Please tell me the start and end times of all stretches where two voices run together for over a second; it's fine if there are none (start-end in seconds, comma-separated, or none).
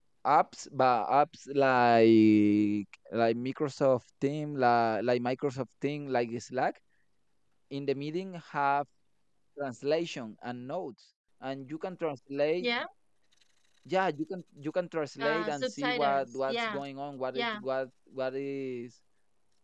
15.2-16.8